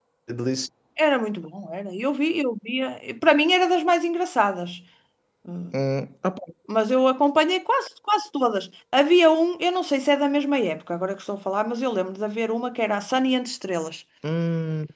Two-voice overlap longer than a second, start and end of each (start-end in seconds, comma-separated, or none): none